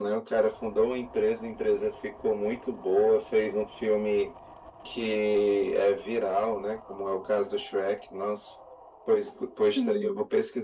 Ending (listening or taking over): listening